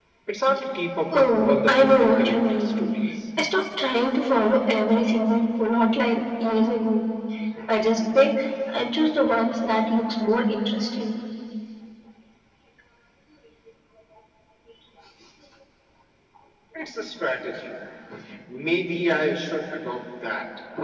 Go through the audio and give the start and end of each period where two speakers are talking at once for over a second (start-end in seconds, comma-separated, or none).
1.2-2.7